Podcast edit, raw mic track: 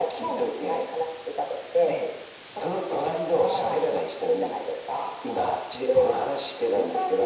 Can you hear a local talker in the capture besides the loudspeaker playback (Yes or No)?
No